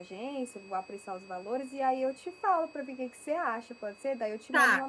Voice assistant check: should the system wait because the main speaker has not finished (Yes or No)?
No